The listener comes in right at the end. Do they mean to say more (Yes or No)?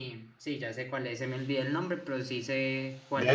Yes